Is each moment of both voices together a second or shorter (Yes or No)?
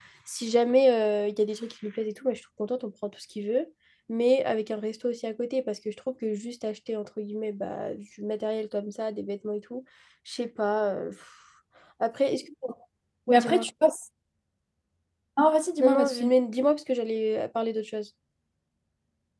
Yes